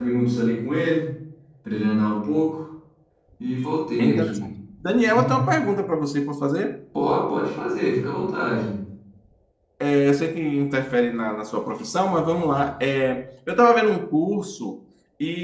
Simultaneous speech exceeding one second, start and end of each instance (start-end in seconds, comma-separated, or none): none